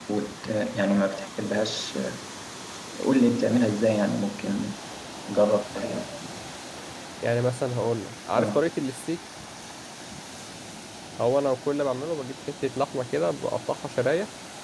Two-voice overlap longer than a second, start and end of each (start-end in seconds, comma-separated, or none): none